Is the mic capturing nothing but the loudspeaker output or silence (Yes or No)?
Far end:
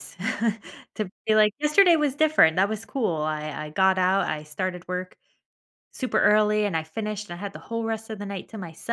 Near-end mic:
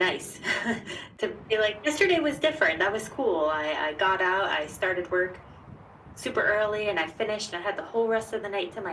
Yes